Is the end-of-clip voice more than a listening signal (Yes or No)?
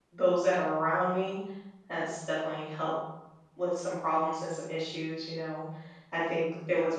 No